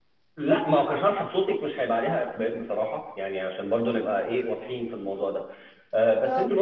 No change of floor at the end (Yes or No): Yes